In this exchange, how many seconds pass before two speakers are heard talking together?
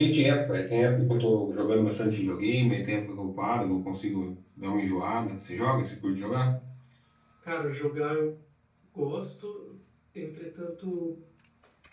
none

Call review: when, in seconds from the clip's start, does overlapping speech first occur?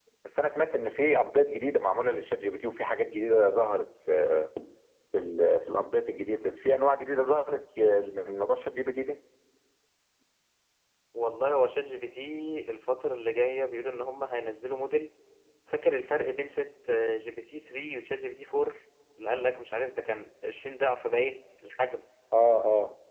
none

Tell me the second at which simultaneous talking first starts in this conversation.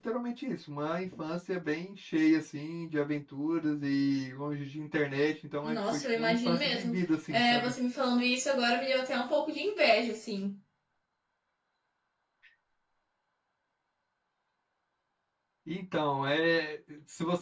5.6 s

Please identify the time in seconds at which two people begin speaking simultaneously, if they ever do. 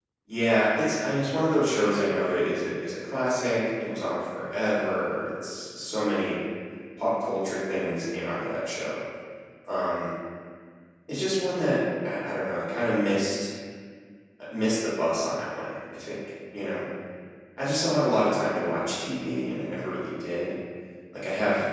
none

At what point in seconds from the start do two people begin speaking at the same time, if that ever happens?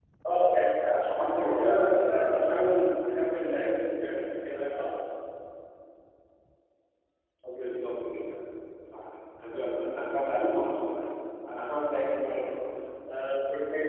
0.8 s

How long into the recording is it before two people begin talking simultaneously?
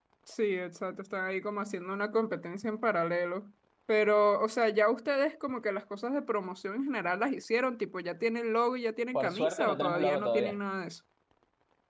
9.1 s

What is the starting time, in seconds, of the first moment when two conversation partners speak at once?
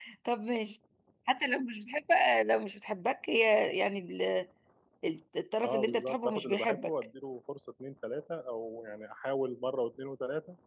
5.6 s

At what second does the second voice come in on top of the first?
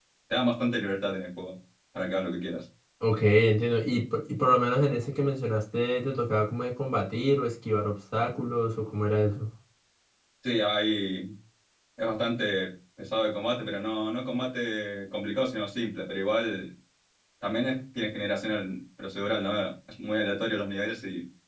none

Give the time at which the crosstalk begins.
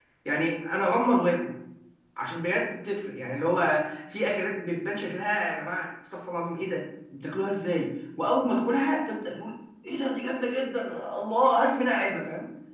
none

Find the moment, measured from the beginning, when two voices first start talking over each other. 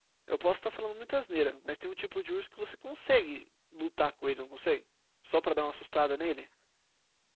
none

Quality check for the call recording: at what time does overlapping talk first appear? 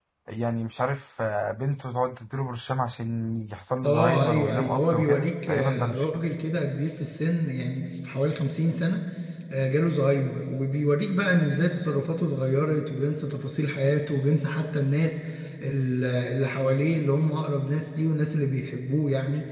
3.8 s

